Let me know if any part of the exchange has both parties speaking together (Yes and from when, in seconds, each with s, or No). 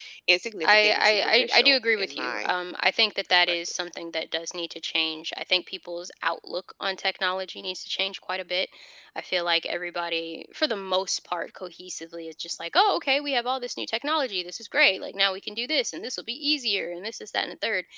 Yes, from 0.6 s